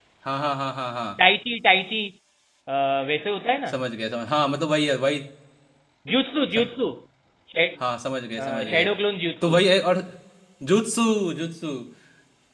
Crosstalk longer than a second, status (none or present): none